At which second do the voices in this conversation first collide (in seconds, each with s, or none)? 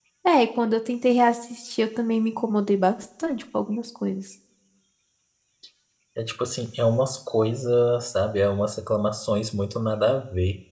none